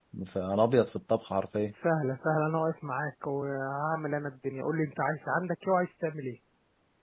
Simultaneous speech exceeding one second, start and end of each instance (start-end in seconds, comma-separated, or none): none